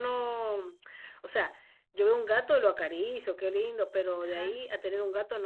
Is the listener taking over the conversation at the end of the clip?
No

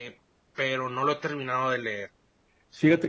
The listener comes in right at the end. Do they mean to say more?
Yes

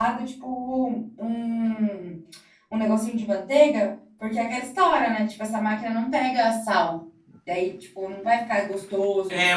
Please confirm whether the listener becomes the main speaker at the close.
Yes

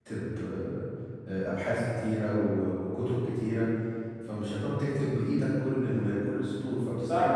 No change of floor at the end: No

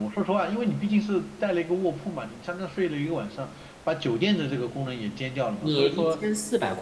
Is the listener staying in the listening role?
No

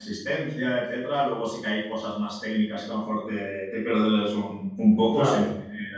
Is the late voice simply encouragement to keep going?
Yes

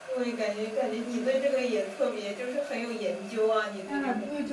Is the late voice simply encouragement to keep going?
No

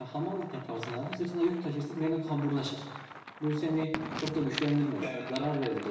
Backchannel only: Yes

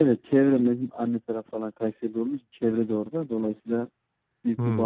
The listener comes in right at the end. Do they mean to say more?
No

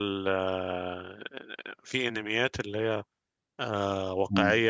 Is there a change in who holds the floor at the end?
No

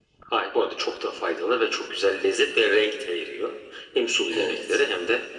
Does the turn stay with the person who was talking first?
Yes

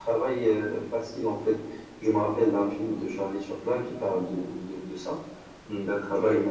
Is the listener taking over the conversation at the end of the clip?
No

